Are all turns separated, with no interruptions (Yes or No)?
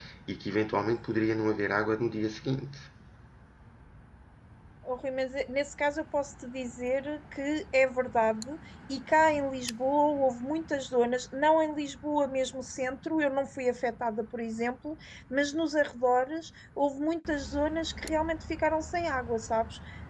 Yes